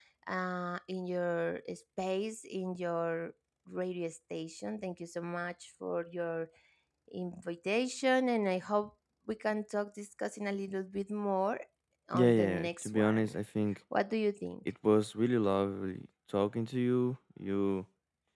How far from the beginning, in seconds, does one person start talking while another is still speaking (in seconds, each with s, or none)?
12.1 s